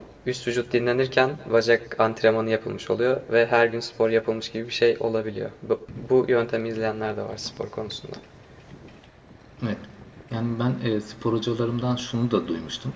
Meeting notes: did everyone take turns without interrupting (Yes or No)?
Yes